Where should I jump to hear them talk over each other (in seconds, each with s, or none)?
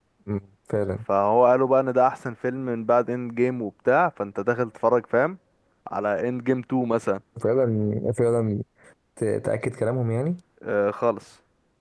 none